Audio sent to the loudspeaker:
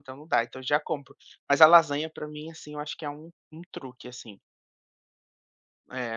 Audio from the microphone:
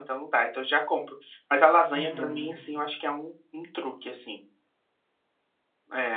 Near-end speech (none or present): present